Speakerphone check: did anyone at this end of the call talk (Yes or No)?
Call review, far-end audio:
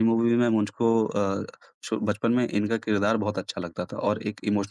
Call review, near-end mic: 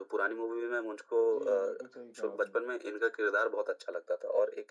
Yes